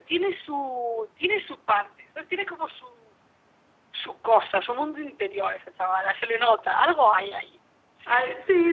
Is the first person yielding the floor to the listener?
Yes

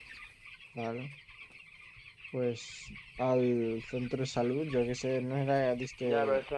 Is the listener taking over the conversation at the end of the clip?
Yes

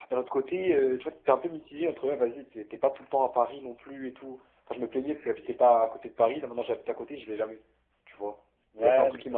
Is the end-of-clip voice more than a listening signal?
Yes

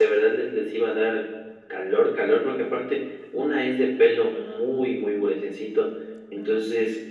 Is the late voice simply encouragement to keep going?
Yes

